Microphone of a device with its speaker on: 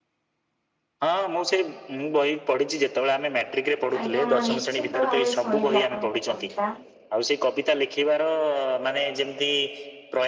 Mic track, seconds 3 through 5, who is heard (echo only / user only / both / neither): both